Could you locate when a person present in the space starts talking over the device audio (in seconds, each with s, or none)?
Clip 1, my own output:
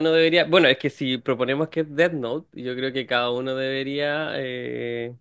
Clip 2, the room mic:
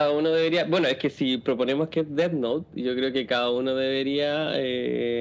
none